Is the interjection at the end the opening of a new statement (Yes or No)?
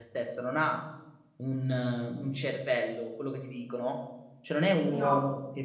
No